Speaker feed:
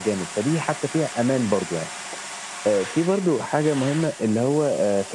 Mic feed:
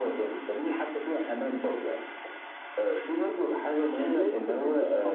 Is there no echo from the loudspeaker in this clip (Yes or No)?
No